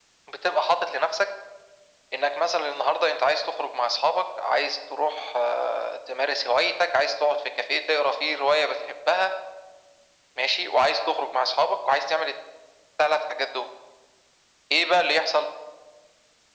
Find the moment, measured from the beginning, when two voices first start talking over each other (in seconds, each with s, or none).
none